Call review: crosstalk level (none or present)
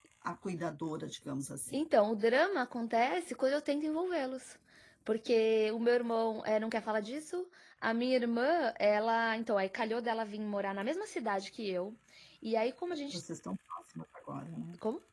none